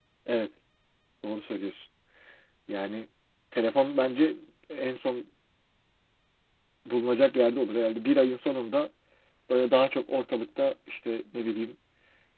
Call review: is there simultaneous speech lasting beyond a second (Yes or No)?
No